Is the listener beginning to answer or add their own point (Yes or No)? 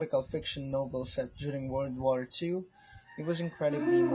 Yes